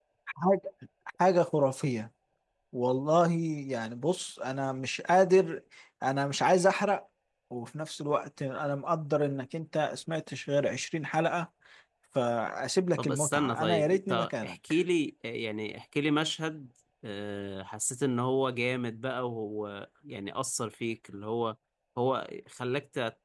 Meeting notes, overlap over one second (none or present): present